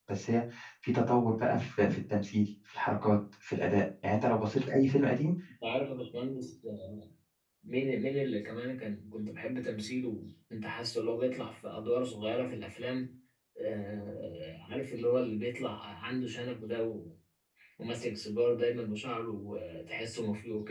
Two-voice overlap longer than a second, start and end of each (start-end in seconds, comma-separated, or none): none